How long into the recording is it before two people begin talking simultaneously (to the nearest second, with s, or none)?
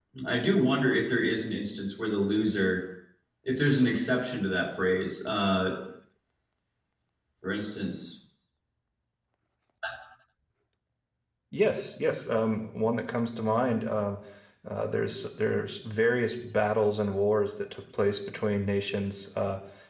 none